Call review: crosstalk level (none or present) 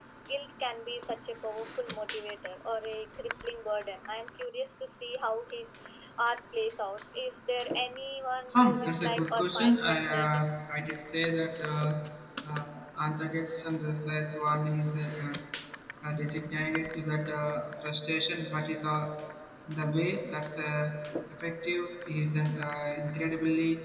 present